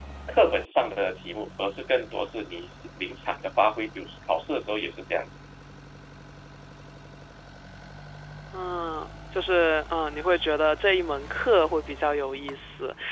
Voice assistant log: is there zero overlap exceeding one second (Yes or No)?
Yes